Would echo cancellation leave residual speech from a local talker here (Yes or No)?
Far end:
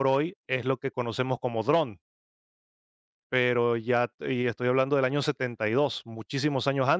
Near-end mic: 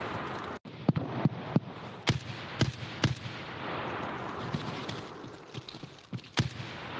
No